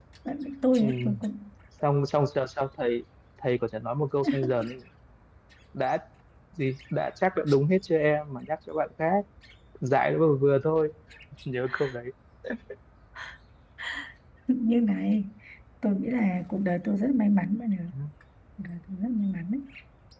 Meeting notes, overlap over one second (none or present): none